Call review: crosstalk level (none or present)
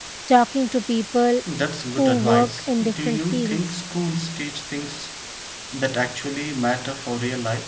present